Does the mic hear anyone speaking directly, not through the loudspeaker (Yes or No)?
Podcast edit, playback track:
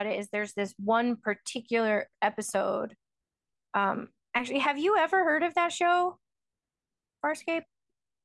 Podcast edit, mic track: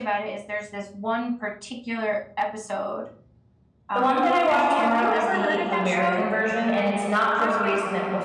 Yes